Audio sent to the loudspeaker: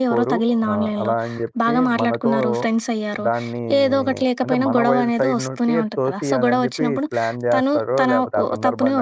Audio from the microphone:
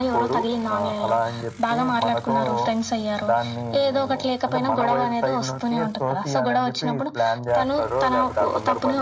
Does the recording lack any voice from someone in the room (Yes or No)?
Yes